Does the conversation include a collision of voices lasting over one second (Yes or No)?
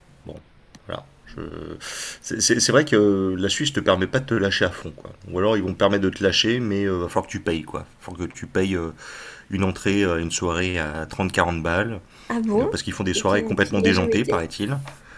Yes